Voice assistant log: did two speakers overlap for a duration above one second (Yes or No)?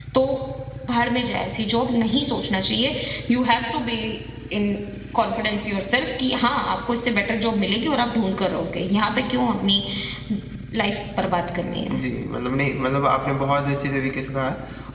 No